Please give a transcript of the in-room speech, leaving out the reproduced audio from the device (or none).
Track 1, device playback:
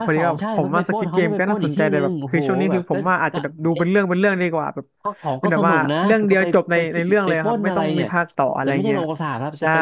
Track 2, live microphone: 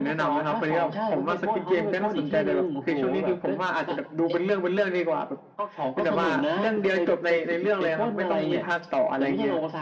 none